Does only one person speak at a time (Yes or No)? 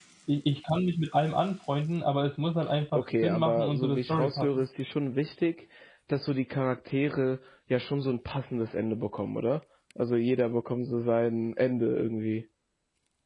No